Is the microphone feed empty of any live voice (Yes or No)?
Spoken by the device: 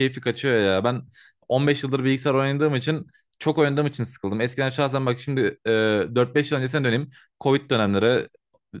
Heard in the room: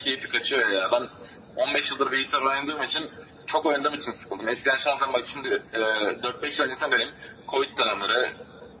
Yes